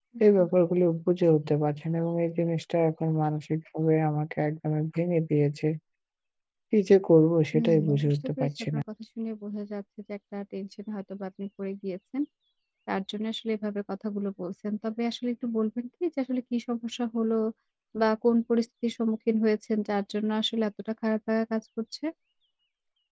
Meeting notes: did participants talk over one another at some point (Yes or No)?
Yes